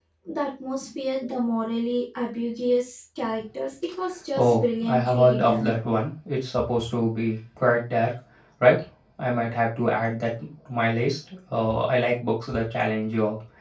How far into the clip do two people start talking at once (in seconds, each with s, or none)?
4.3 s